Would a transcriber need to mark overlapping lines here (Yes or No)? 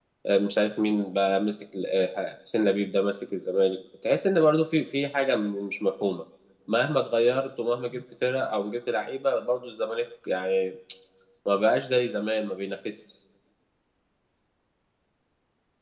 No